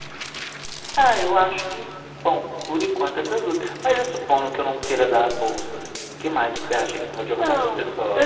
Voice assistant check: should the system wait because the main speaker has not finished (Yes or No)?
No